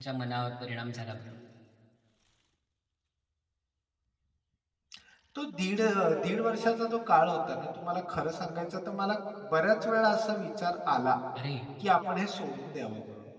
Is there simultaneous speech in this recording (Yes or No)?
No